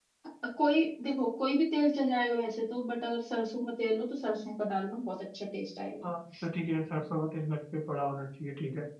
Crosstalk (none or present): none